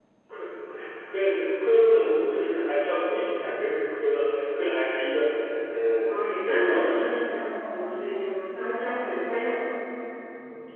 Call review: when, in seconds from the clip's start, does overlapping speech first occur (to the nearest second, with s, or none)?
6 s